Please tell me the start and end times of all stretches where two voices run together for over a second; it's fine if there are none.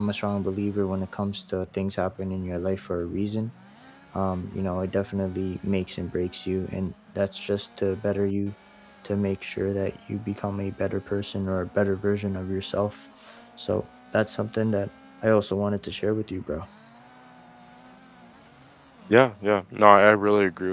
none

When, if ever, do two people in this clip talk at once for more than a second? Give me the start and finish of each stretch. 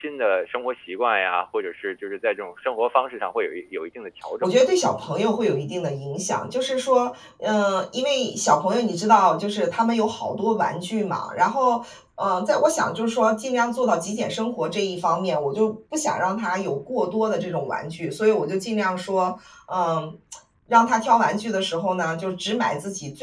none

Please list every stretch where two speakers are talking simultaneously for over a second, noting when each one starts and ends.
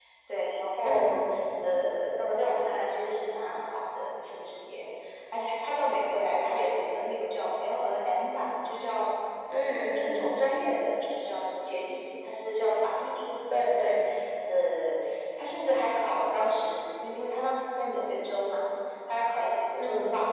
none

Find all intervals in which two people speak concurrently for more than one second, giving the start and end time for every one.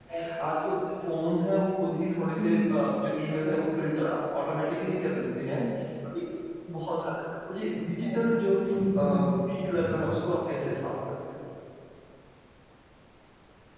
none

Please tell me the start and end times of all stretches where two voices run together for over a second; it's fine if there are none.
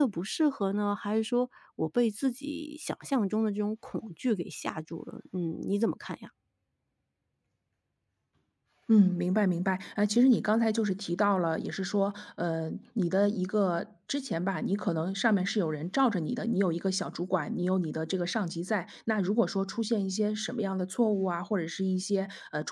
none

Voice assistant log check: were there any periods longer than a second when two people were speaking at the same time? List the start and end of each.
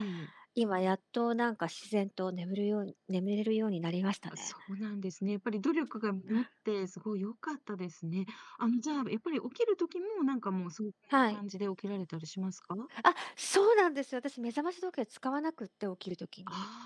none

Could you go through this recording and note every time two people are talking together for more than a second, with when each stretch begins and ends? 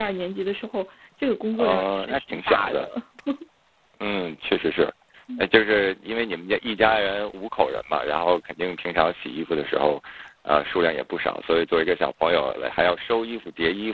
1.5-2.8

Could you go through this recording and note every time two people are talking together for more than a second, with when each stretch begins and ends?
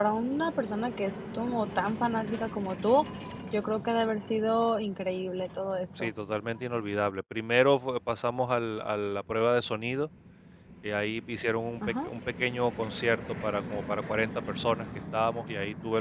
none

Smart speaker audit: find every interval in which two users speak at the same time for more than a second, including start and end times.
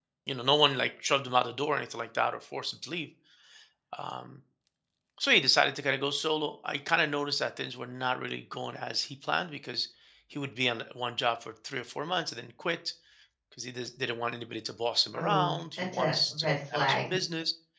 15.2-17.1

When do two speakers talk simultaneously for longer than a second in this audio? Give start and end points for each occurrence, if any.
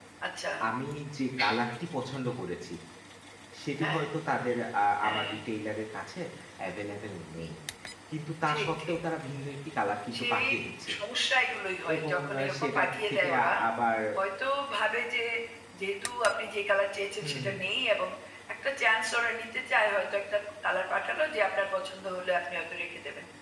11.9-13.5

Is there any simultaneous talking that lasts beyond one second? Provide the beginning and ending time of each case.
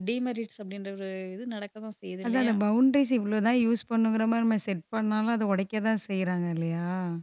none

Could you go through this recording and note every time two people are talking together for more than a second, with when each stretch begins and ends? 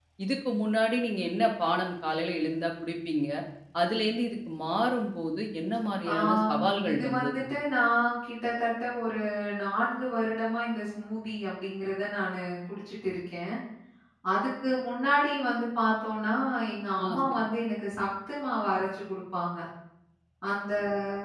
6.1-7.4

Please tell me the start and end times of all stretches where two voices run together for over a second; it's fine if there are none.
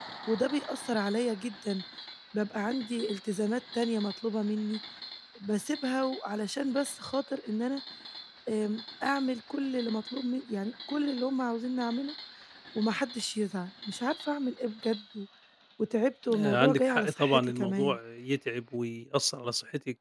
16.4-18.0

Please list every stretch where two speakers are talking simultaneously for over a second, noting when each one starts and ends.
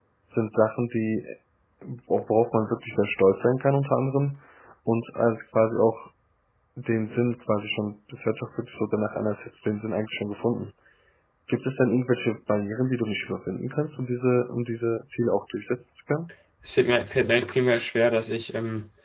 none

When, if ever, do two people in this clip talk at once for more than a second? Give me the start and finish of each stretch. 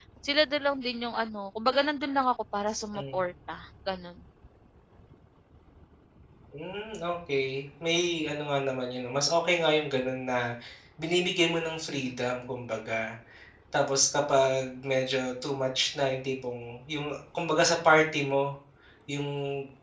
none

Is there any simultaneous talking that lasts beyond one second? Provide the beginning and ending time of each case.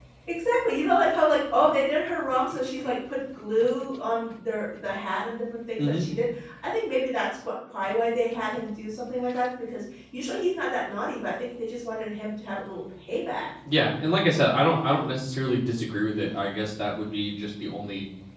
none

